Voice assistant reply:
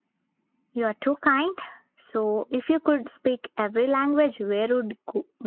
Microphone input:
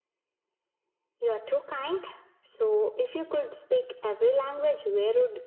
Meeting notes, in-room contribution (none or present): none